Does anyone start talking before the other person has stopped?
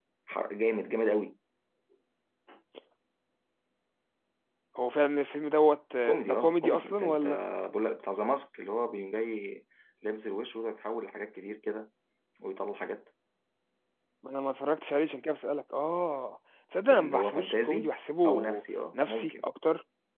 Yes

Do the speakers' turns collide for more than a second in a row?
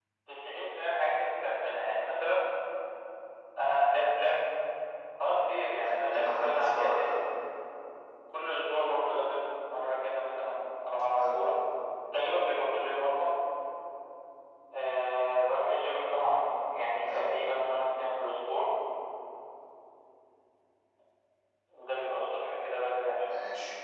Yes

